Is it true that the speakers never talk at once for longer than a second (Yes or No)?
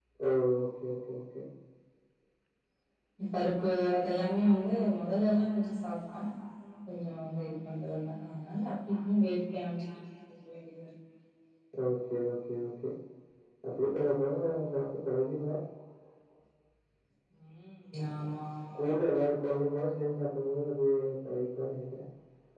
Yes